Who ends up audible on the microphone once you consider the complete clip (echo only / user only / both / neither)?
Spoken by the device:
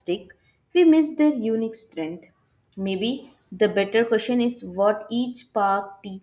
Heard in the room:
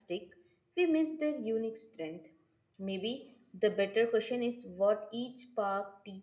echo only